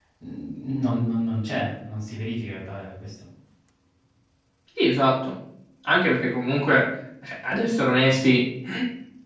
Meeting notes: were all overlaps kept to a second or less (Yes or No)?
Yes